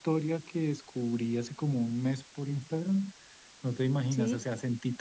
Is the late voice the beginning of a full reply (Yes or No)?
No